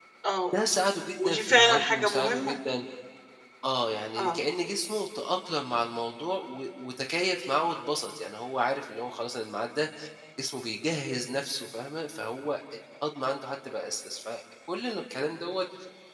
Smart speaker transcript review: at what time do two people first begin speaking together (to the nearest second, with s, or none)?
1 s